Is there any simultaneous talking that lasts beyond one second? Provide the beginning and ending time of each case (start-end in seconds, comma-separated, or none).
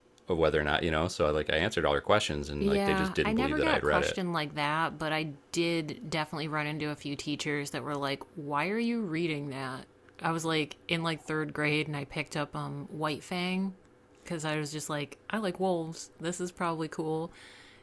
2.6-4.2